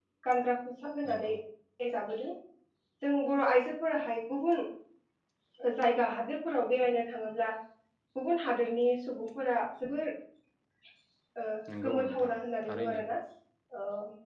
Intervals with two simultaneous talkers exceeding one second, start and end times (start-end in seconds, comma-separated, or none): 11.8-13.0